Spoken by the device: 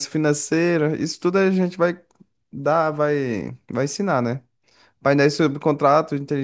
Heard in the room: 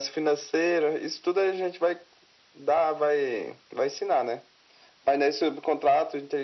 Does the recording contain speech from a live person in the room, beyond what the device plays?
No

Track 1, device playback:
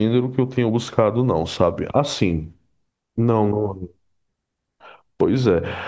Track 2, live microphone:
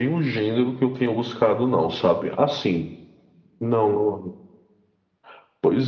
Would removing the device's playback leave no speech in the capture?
Yes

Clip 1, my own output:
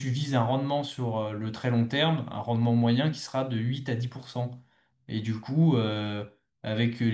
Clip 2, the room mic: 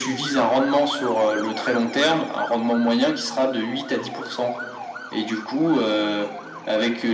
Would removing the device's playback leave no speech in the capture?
Yes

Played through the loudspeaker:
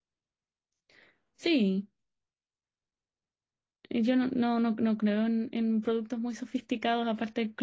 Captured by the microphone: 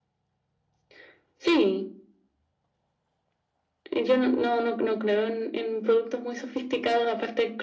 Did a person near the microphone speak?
No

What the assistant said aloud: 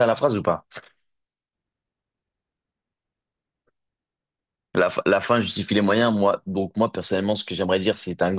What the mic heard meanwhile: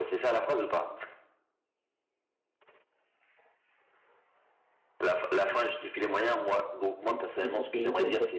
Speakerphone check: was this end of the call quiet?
No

